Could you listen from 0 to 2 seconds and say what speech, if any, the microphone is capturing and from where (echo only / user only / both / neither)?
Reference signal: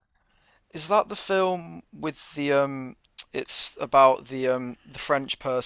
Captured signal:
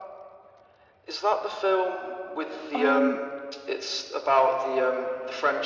echo only